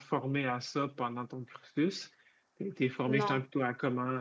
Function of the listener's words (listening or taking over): listening